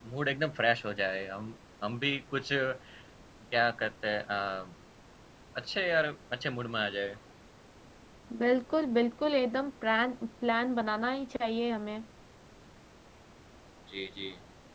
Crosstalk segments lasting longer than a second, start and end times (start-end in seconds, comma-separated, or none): none